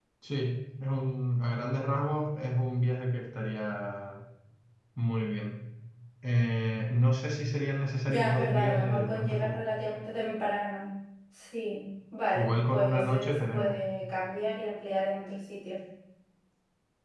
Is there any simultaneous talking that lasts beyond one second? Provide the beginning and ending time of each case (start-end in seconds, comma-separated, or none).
8.1-9.6, 12.3-13.8